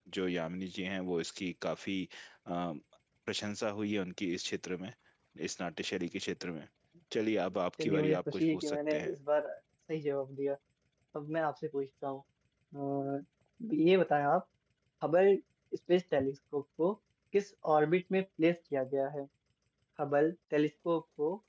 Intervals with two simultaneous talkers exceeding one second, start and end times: 7.8-9.1

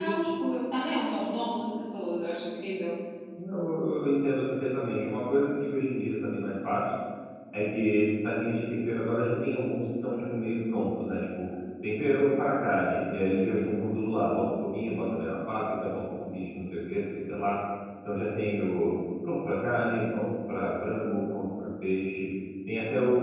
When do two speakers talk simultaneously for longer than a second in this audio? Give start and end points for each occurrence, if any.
none

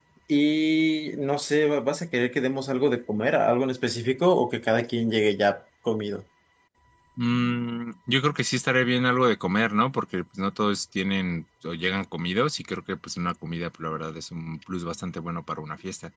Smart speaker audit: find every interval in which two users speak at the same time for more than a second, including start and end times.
none

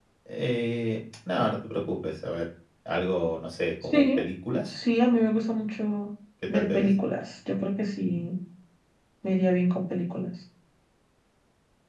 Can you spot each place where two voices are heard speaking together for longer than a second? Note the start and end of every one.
none

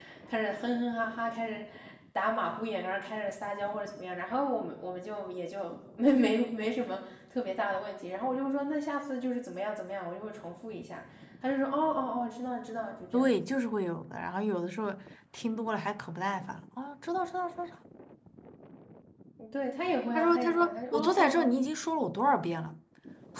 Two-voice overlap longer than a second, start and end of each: 20.1-21.6

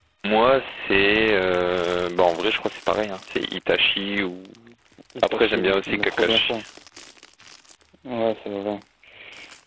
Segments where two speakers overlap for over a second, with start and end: 5.2-6.6

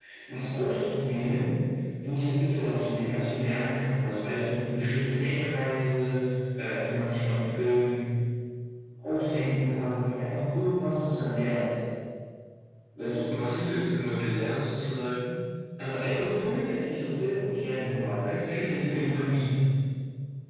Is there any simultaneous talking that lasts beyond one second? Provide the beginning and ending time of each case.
none

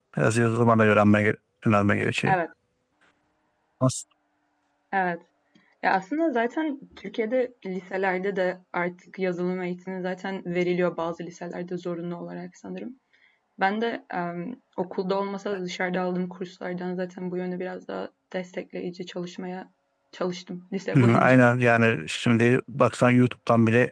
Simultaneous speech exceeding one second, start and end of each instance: none

